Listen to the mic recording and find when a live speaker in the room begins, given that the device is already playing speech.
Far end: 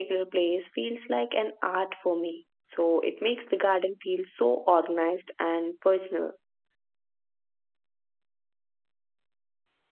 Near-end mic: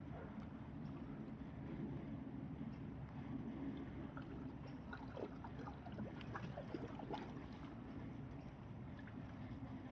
none

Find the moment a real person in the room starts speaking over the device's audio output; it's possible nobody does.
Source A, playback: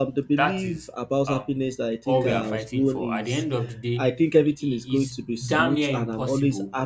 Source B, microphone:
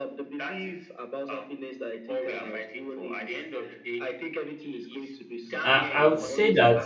5.6 s

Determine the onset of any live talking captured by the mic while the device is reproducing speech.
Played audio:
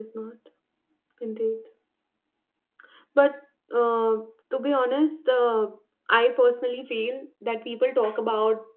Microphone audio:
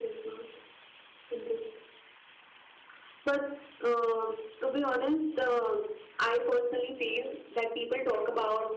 none

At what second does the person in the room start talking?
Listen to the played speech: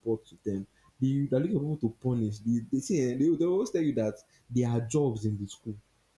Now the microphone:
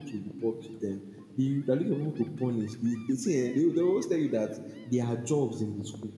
none

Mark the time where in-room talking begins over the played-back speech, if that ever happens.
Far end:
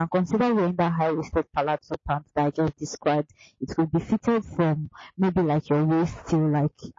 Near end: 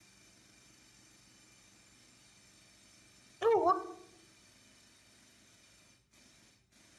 3.4 s

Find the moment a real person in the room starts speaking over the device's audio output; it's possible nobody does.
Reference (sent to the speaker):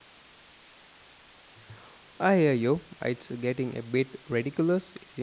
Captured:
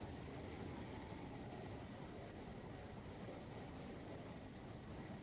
none

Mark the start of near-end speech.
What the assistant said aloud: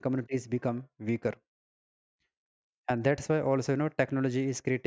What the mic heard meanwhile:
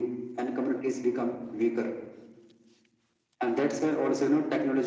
none

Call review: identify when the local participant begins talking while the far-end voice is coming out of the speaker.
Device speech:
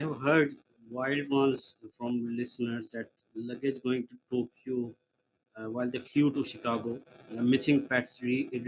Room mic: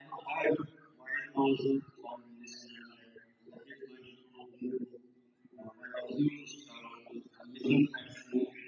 none

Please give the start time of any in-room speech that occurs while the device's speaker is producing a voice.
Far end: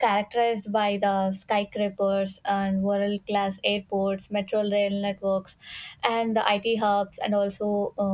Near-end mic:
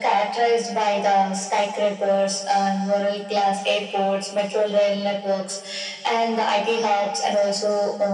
none

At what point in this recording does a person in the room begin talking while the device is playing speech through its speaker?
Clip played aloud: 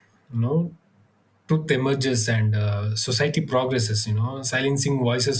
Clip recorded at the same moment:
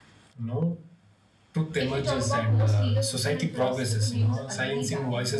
1.8 s

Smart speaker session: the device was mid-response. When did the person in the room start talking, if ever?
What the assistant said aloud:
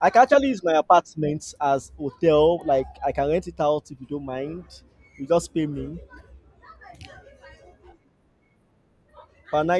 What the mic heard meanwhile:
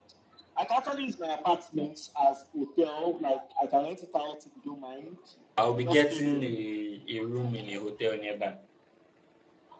5.6 s

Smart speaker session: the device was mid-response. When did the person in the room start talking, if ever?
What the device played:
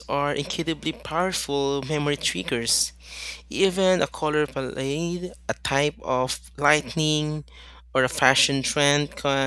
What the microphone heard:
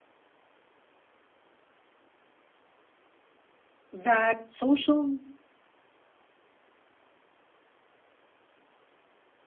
3.9 s

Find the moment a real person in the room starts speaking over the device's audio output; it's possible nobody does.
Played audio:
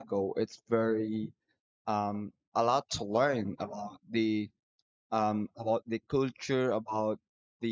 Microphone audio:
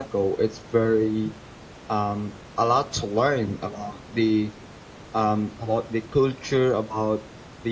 none

